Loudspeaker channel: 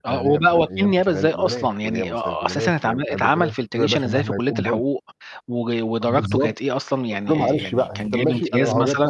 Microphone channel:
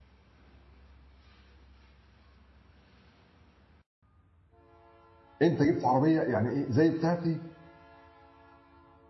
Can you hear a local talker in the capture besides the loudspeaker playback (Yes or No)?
Yes